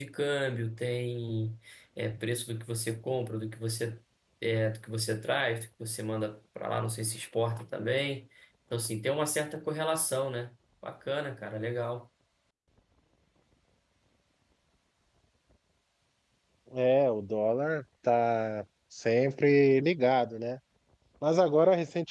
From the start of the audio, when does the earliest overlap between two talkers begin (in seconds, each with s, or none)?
none